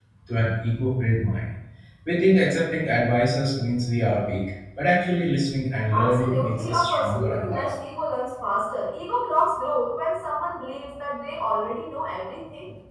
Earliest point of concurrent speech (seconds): 5.9 s

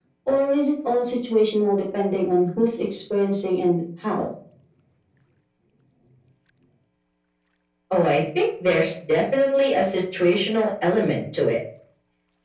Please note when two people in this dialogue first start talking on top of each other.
none

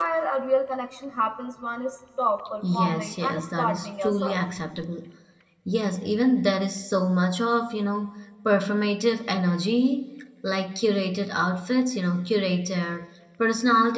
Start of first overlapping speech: 2.6 s

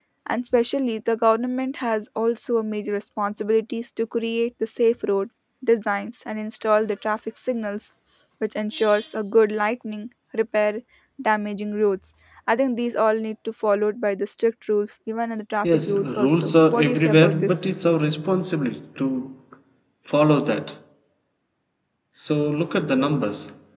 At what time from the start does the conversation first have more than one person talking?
15.6 s

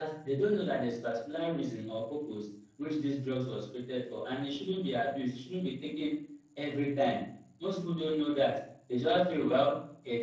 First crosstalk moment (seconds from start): none

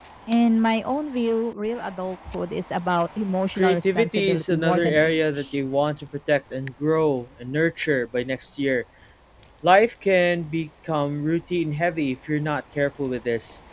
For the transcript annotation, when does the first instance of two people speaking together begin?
3.6 s

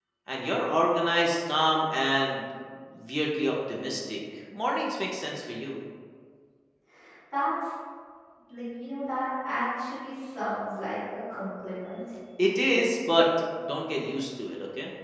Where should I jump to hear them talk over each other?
none

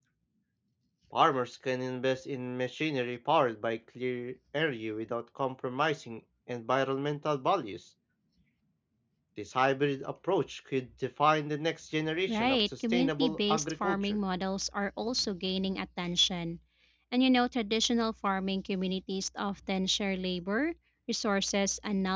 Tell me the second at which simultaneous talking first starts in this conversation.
12.3 s

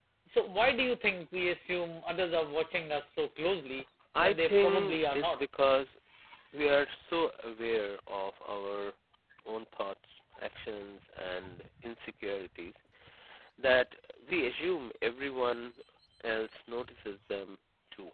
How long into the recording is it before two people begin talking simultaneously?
4.2 s

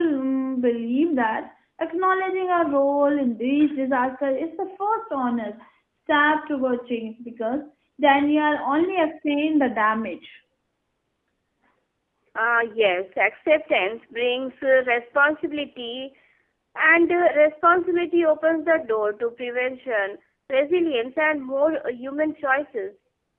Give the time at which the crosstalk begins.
none

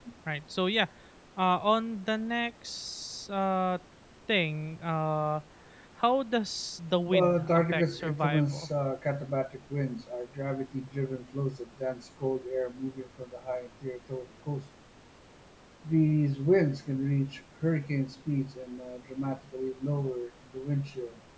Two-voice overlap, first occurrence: 7.1 s

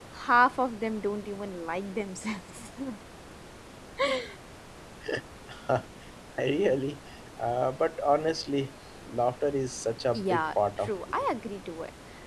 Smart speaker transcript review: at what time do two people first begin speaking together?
10.1 s

